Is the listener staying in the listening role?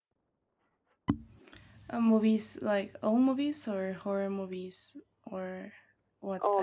No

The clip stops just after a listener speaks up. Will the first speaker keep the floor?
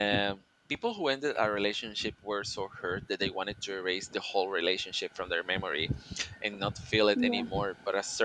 Yes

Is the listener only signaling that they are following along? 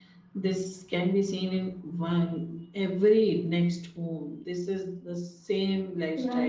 No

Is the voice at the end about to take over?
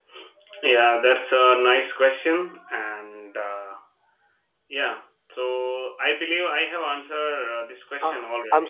Yes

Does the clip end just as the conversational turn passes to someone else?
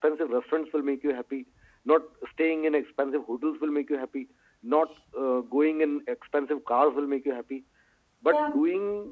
No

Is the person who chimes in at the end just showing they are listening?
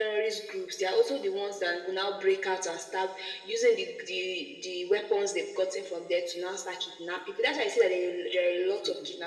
Yes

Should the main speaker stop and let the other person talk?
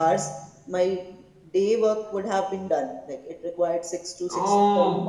Yes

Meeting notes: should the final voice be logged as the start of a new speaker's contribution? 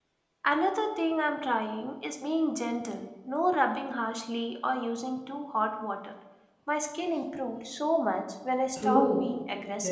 Yes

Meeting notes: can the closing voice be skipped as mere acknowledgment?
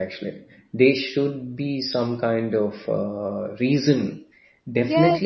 No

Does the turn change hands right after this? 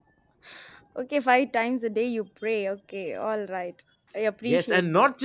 Yes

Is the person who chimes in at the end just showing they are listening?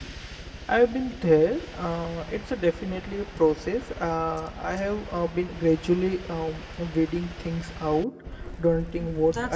No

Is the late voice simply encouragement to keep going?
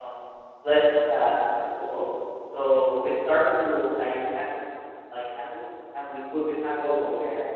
Yes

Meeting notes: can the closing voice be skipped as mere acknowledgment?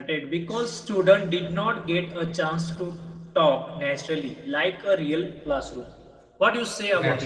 No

